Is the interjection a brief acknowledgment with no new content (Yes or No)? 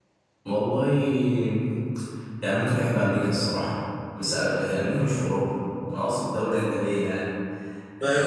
No